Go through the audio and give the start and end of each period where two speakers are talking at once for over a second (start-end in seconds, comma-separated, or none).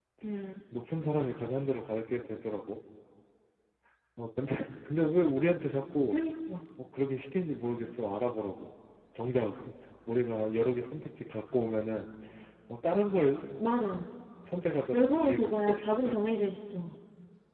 14.9-16.1